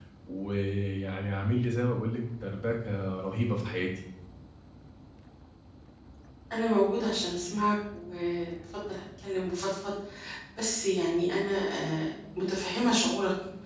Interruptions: none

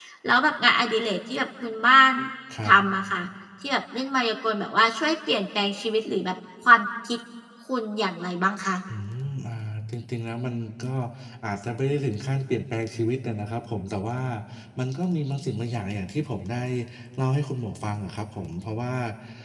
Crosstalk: none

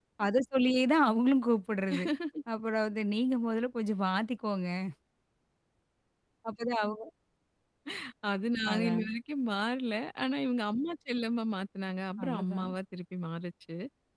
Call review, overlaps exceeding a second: none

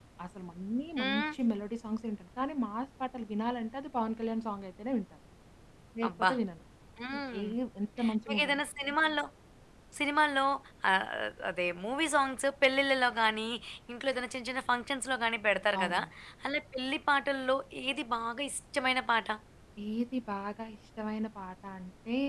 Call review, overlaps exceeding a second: none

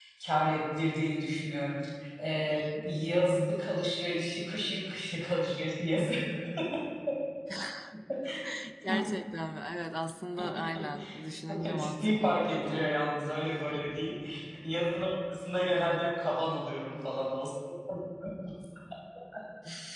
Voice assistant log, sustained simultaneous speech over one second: present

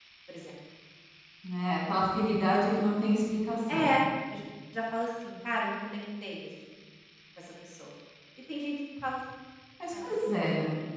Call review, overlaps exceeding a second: none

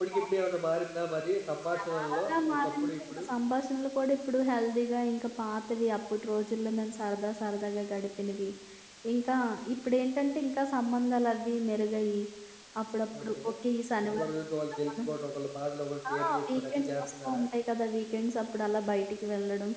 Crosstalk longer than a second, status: present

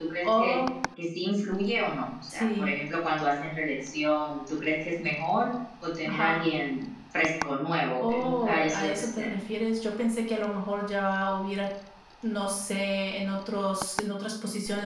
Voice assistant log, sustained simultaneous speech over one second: present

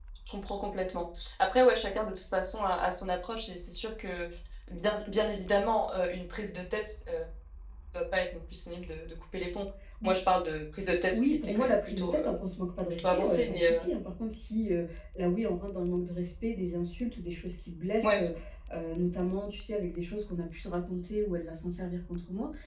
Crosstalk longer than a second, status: present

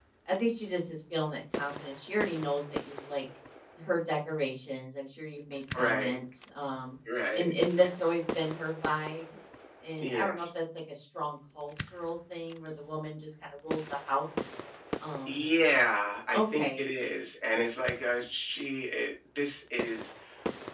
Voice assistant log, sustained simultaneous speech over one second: none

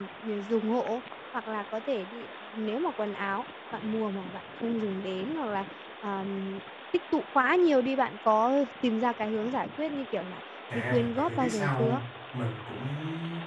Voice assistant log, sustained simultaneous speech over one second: present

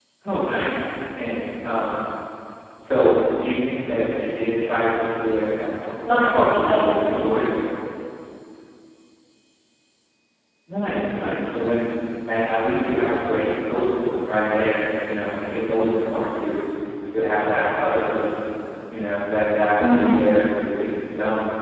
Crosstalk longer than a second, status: present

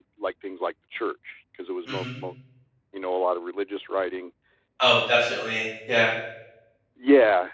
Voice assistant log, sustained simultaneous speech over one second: none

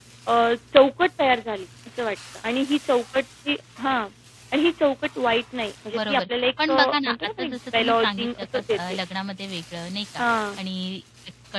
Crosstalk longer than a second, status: present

